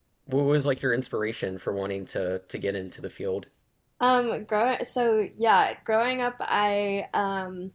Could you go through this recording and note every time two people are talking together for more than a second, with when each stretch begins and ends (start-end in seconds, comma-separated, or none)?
none